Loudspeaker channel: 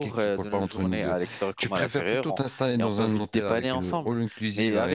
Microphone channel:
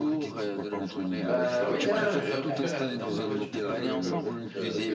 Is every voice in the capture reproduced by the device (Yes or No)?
No